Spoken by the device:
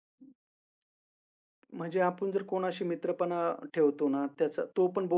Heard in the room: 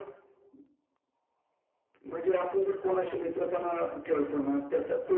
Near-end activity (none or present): present